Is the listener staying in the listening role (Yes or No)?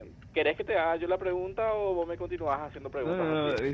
No